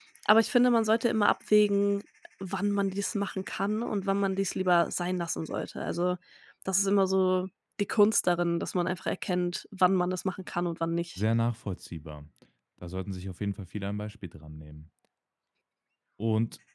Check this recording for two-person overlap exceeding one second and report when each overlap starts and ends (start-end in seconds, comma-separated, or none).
none